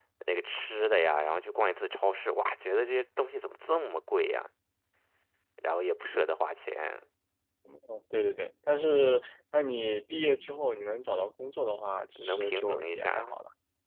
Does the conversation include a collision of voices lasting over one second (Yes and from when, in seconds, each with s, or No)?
Yes, from 12.2 s